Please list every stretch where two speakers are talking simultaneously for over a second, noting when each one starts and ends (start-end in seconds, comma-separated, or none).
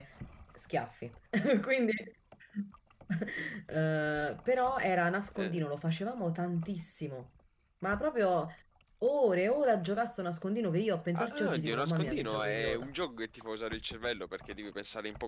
11.1-12.9